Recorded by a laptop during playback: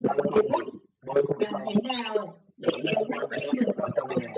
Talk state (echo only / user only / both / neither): echo only